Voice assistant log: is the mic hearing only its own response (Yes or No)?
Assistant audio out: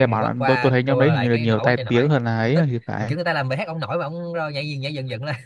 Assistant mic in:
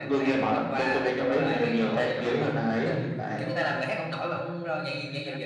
No